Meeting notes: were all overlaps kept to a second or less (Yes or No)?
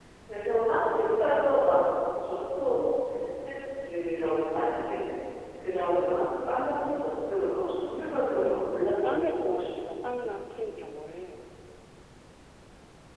No